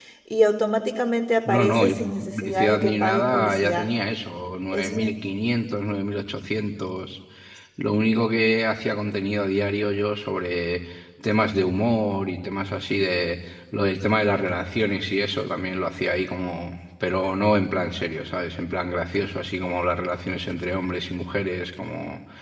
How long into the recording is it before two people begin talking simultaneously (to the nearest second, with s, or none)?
1 s